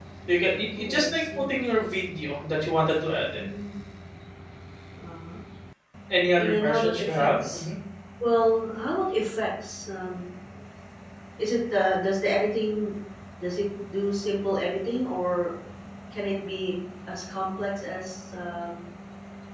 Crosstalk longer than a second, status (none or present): present